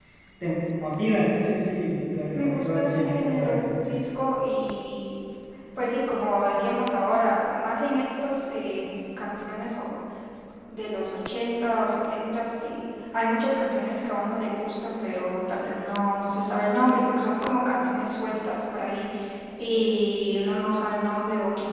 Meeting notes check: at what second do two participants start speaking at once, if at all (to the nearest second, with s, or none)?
2 s